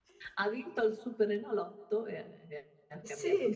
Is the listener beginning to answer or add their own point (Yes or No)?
Yes